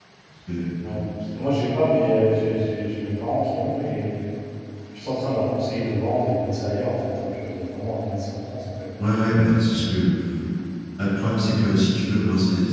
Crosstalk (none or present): none